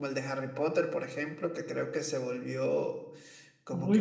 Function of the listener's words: taking over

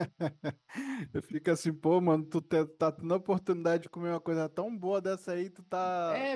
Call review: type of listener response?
taking over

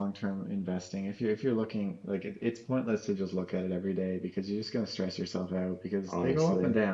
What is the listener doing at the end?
listening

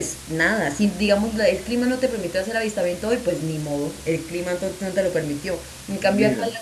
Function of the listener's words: listening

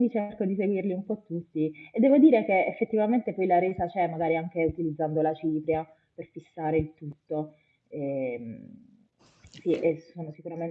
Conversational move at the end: listening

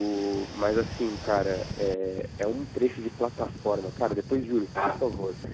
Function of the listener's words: listening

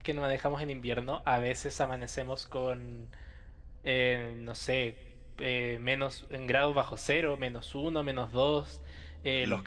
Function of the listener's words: listening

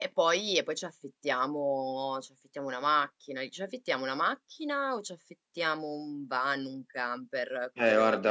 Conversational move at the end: taking over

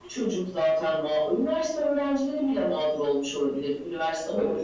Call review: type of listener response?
listening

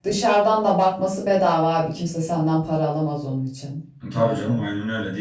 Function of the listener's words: taking over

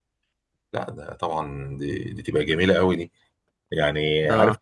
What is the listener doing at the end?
taking over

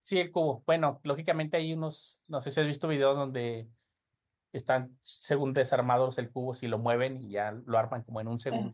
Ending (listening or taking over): taking over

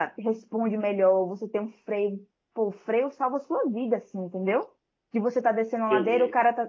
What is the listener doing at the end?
listening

